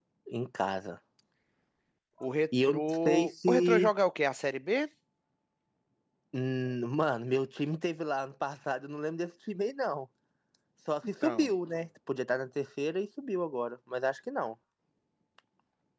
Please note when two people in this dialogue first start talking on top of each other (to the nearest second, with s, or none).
3 s